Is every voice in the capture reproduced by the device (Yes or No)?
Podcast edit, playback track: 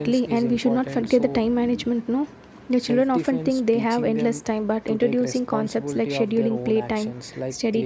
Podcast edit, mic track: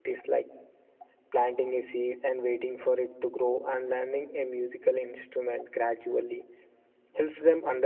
No